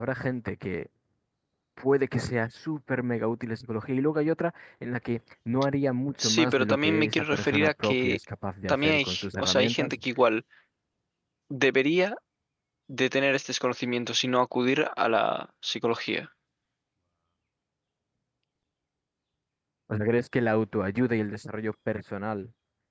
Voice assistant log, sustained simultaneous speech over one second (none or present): present